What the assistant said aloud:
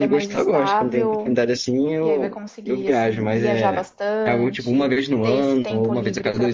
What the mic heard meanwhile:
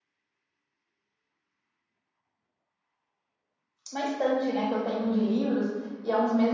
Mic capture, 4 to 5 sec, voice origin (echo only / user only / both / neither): user only